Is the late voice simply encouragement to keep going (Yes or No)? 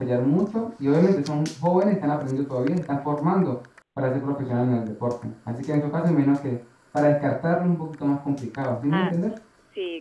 No